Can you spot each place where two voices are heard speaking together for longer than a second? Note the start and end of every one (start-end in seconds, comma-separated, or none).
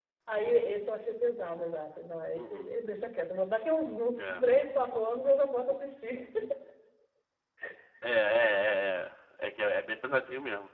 none